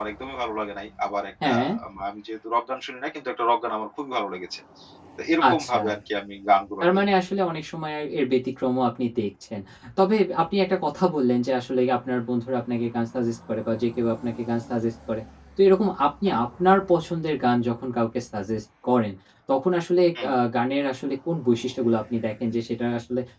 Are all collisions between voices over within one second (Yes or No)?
Yes